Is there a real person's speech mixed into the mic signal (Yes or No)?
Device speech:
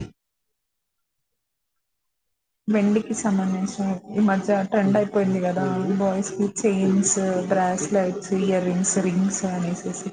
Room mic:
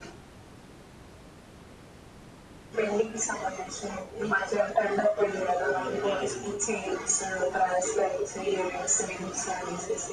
Yes